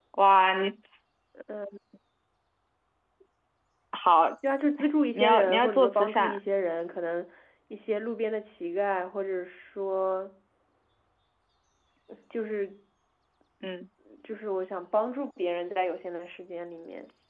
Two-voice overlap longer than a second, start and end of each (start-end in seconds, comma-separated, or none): 5.1-6.4